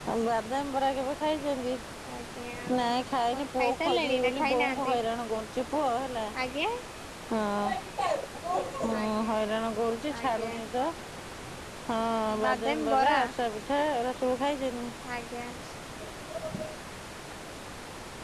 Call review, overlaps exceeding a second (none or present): present